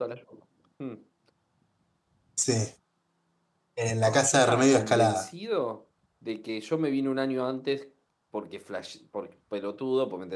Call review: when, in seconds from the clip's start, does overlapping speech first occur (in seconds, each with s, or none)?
4.0 s